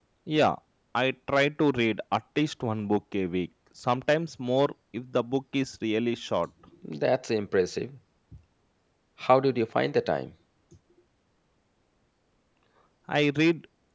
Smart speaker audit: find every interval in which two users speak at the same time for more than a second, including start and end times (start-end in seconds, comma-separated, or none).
none